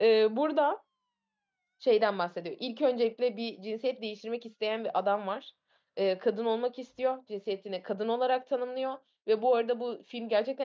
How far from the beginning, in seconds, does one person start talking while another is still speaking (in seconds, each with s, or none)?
none